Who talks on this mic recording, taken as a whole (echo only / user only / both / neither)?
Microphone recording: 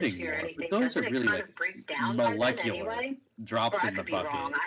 both